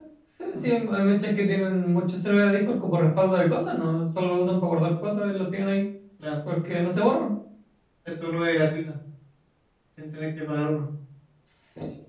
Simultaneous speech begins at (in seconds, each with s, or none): none